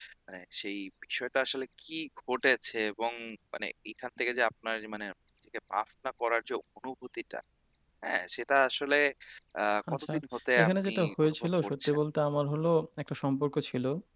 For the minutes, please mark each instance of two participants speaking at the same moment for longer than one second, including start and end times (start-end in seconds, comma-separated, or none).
10.6-12.0